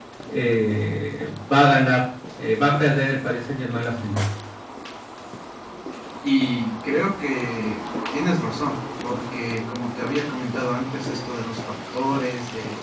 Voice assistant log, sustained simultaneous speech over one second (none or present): none